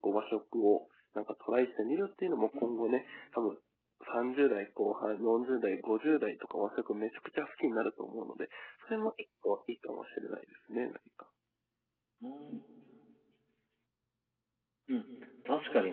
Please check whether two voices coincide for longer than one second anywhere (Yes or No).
No